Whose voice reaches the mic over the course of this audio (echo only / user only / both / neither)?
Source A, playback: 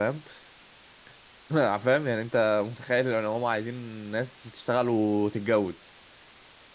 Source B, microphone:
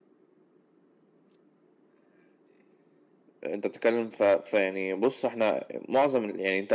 user only